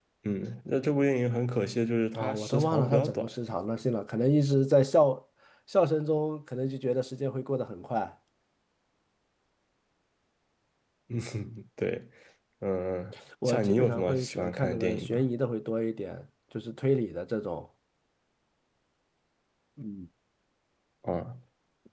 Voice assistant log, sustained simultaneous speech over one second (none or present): present